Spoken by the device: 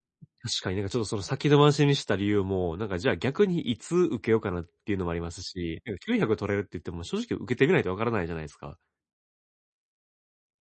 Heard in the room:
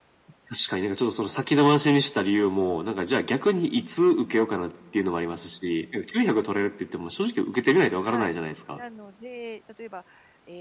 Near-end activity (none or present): present